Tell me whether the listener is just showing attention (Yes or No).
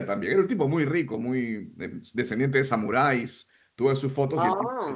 Yes